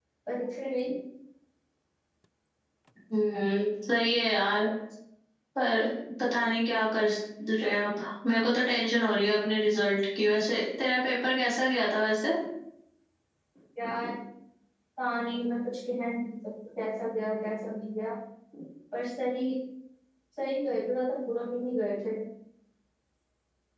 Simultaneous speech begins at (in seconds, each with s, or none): none